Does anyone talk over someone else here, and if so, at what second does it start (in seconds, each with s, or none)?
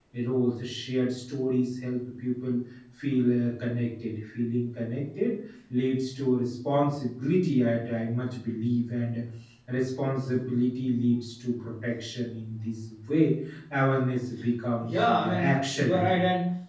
14.8 s